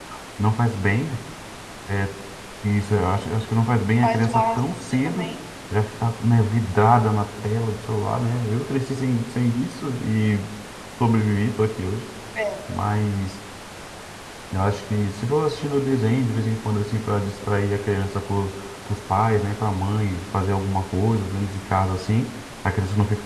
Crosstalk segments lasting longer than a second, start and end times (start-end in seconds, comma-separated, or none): 4.0-5.3